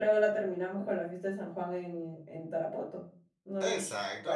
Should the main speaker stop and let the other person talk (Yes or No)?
Yes